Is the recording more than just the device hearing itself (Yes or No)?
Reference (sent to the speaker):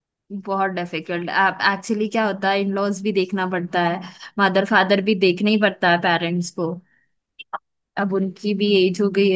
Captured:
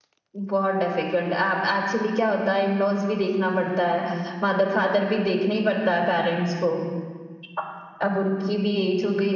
No